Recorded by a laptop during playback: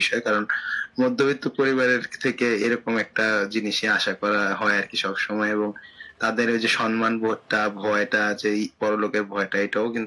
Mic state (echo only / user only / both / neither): echo only